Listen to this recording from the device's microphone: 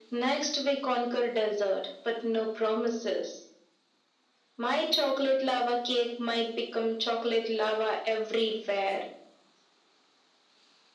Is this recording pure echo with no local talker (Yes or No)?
Yes